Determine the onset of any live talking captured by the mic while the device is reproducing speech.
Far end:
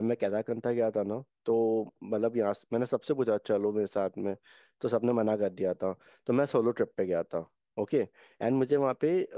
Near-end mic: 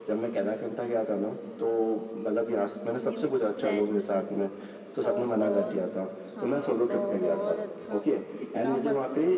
3.0 s

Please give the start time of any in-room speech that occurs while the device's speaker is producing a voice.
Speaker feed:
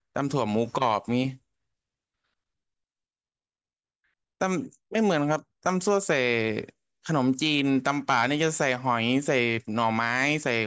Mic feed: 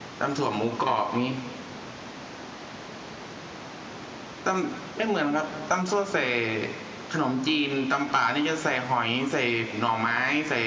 none

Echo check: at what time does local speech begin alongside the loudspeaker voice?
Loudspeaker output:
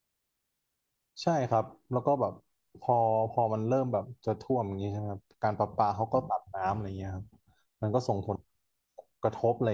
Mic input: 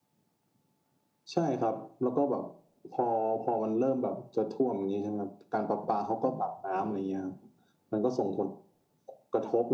none

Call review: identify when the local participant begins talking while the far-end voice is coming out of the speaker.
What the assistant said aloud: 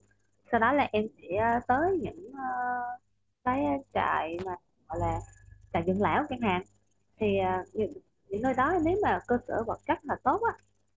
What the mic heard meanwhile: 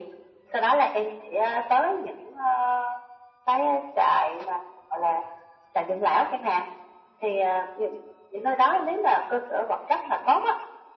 none

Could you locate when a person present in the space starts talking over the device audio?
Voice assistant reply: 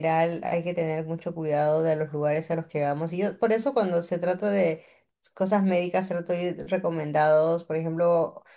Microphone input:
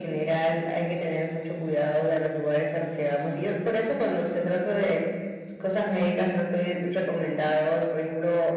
none

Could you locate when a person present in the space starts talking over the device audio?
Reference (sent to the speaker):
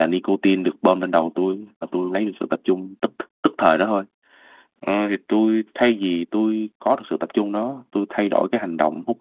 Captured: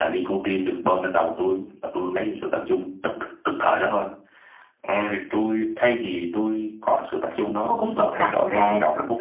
7.6 s

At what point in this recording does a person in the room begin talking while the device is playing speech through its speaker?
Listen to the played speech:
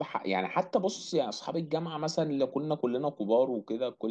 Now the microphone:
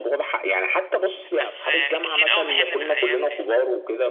1.4 s

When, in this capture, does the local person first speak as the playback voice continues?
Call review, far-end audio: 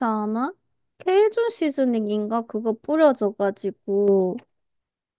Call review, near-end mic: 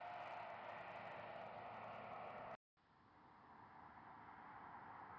none

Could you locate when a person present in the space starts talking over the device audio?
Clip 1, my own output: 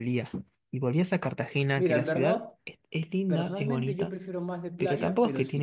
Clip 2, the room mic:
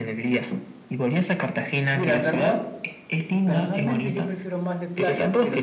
none

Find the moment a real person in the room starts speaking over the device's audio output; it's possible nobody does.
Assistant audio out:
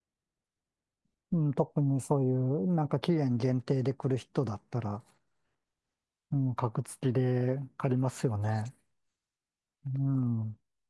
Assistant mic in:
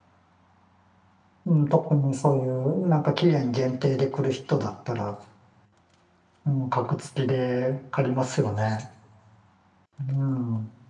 none

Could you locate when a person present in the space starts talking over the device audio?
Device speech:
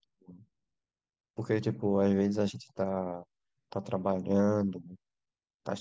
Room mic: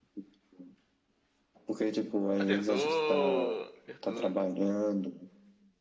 2.4 s

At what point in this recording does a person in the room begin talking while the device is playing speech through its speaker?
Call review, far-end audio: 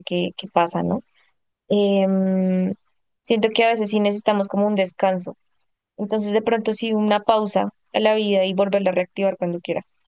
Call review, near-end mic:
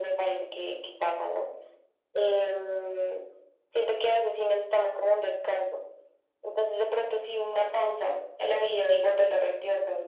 none

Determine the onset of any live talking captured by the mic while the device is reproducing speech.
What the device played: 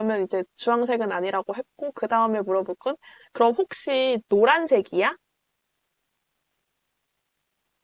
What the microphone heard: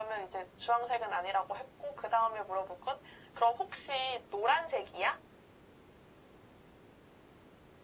none

